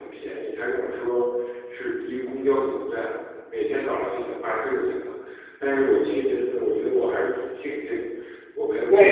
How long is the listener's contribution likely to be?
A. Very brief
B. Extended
B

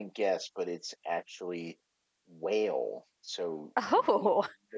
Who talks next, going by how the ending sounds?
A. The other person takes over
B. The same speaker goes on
B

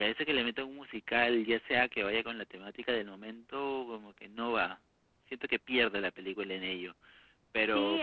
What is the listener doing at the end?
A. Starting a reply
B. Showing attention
A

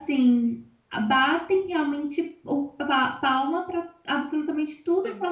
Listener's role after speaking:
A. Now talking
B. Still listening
B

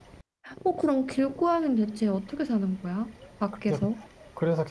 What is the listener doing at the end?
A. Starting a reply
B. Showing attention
A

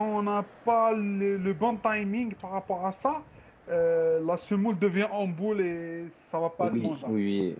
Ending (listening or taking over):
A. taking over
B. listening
A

